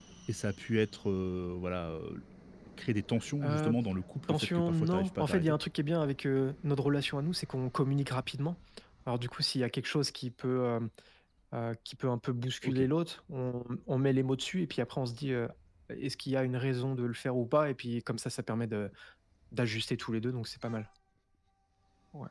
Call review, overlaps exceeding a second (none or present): present